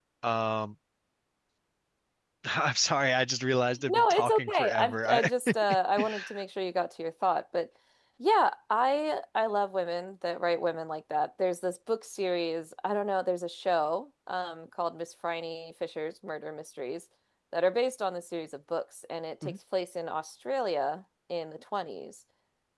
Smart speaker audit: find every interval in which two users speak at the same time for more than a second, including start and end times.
3.9-5.3

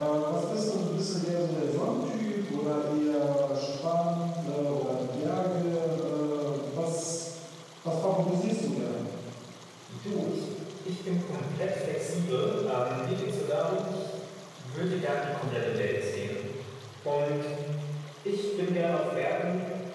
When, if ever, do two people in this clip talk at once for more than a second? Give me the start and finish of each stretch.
none

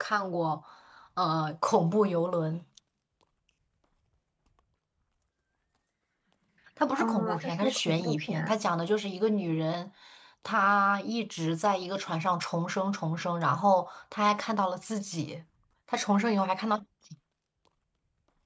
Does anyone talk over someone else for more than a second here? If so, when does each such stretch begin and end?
7.0-8.5

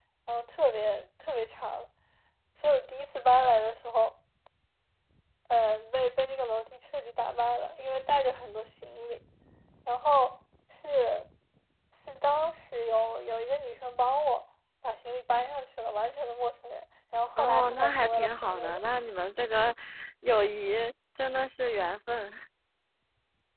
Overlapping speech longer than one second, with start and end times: 17.4-18.8

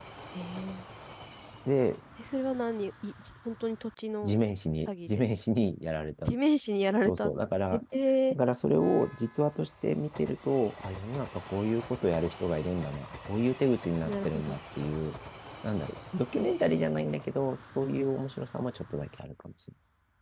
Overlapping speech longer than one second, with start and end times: none

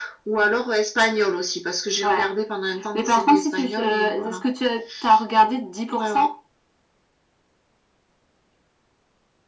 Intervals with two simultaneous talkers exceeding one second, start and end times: 2.9-4.4

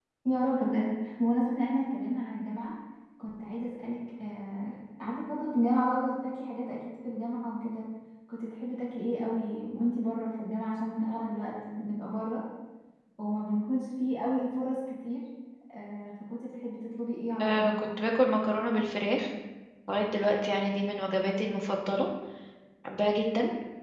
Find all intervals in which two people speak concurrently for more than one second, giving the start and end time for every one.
none

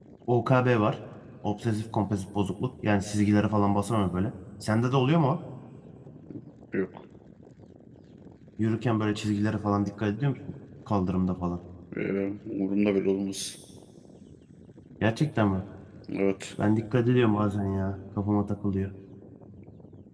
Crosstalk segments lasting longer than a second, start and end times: none

